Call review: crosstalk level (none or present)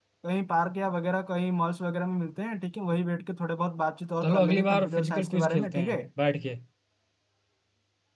present